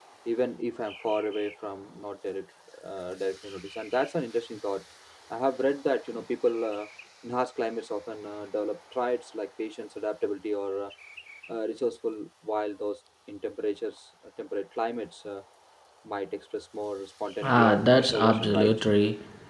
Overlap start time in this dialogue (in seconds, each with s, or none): 17.4 s